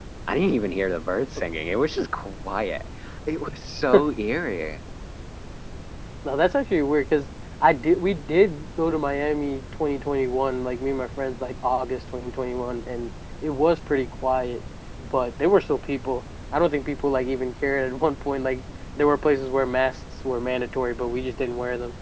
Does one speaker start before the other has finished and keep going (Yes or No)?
No